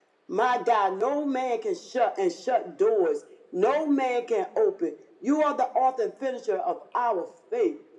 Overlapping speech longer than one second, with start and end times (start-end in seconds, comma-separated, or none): none